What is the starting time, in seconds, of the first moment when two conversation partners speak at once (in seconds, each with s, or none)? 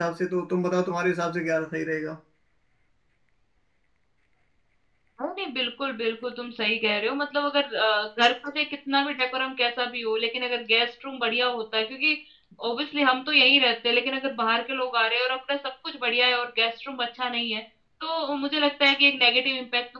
none